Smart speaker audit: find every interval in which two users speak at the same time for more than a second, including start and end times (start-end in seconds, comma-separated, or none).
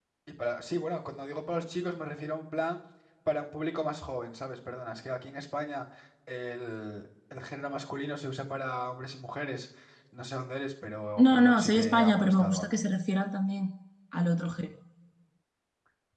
11.2-12.8